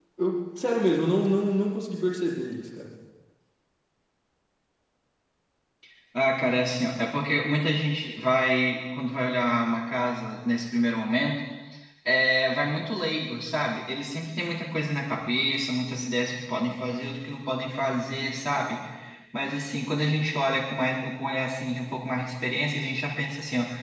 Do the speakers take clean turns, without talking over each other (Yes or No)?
Yes